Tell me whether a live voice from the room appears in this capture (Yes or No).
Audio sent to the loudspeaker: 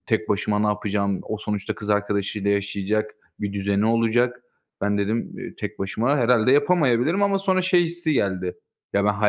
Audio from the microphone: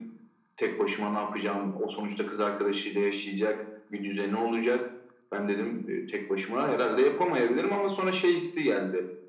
No